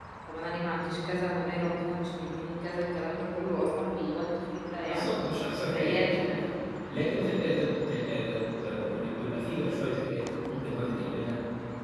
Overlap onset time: 5 s

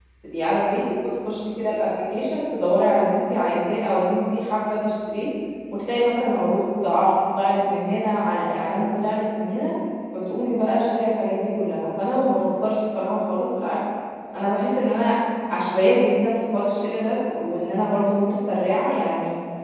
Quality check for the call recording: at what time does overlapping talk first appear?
none

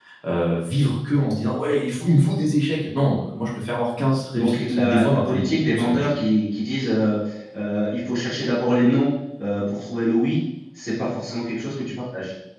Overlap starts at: 4 s

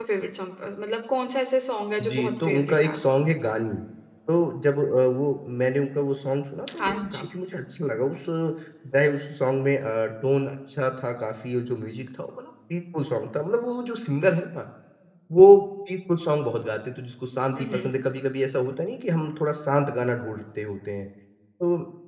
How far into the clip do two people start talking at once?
2 s

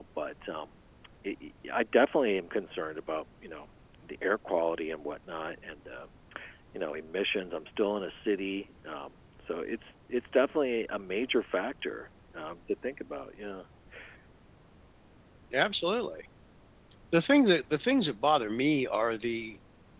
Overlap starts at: none

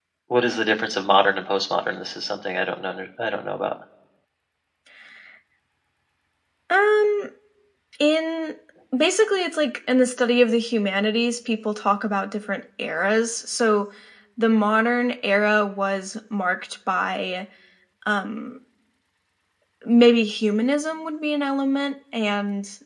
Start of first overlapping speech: none

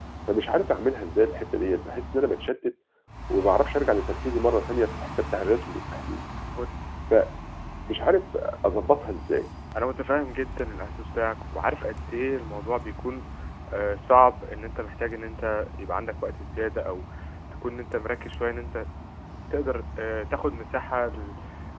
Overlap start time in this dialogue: none

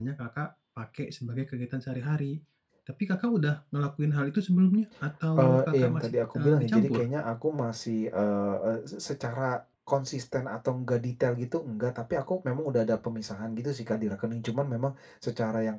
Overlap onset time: 5 s

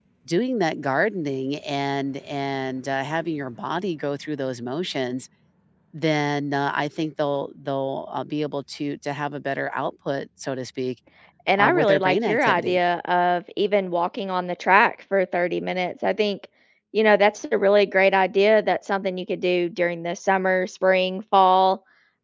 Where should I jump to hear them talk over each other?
12 s

